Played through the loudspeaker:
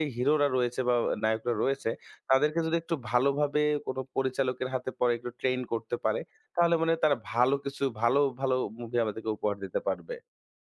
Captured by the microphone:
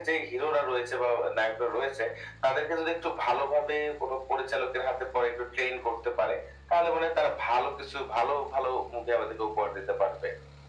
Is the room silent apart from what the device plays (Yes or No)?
Yes